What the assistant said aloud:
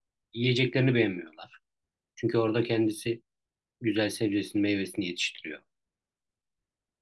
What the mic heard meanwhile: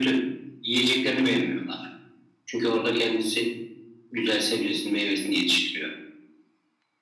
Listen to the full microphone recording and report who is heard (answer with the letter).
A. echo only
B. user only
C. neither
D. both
A